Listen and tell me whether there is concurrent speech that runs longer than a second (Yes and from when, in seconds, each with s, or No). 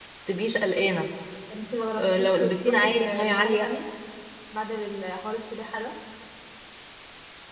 Yes, from 2.0 s